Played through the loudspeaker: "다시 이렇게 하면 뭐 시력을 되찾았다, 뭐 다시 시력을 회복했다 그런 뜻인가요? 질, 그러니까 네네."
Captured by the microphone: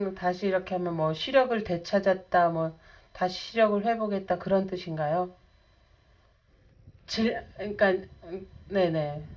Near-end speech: none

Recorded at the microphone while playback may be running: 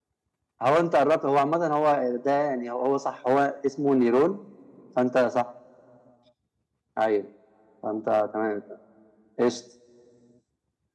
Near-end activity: none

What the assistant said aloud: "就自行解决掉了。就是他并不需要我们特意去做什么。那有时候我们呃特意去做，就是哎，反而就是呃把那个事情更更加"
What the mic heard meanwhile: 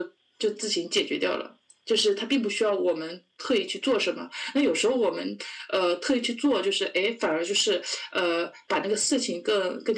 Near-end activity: none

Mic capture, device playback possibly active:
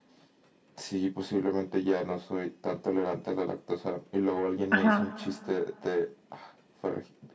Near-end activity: present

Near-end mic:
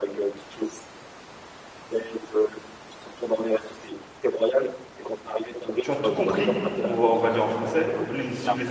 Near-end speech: present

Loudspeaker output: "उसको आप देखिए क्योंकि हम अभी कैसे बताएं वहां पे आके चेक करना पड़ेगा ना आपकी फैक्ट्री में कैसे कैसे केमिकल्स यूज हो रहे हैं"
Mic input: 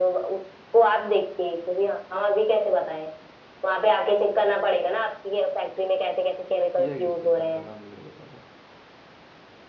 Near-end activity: present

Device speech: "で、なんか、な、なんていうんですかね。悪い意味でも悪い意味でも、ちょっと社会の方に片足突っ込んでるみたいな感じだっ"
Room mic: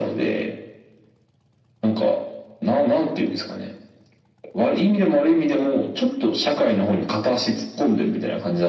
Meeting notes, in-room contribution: none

